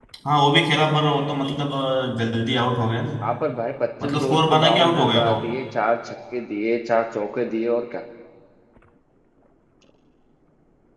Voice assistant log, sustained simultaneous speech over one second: present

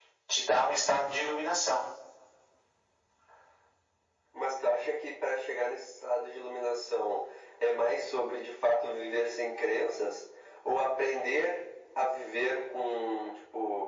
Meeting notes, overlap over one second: none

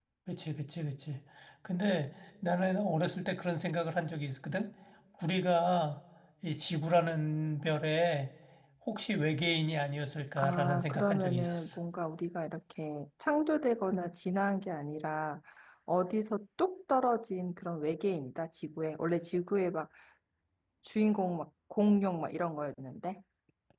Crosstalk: present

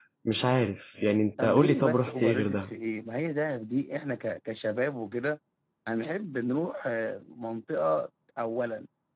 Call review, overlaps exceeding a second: present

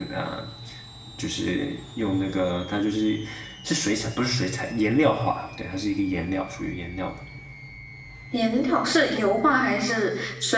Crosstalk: none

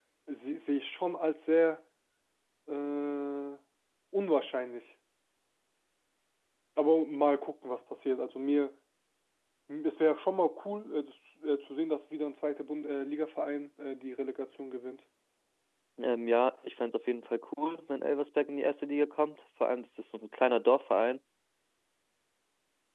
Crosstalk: none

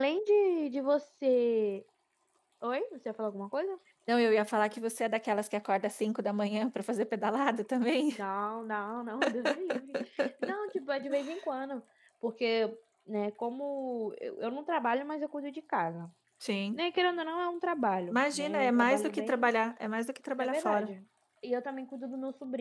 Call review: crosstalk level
present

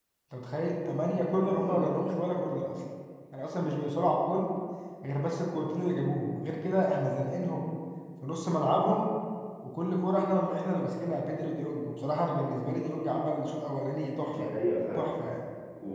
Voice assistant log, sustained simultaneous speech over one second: none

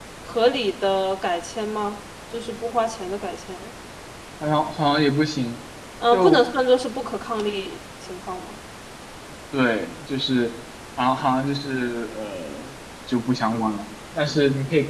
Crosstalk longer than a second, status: none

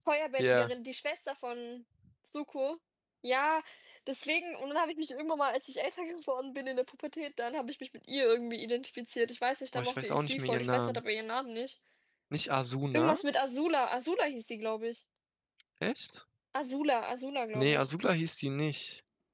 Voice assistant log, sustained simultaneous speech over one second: present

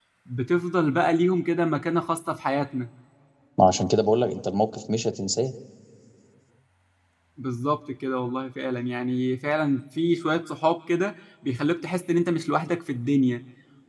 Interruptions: none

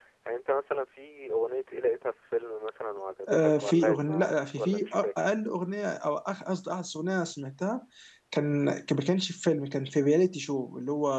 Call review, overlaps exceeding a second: present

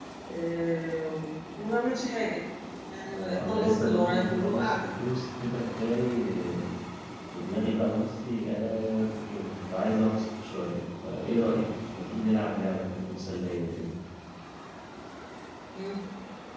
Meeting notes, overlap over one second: present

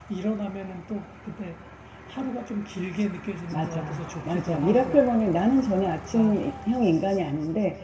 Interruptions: present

